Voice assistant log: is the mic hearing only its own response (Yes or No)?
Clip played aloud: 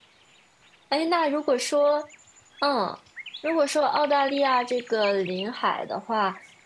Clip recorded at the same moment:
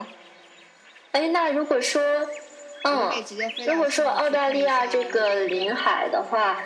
No